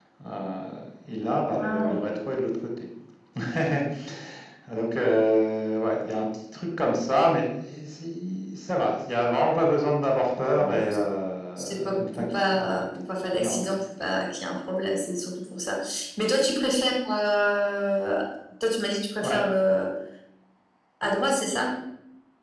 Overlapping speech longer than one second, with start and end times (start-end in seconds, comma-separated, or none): 11.6-12.8